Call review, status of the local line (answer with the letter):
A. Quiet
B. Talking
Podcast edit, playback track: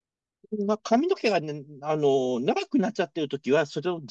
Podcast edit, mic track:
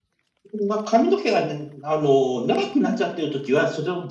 A